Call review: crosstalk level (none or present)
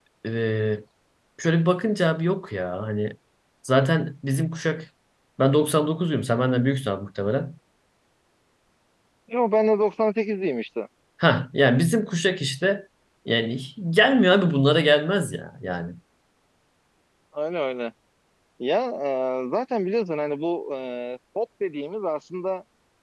none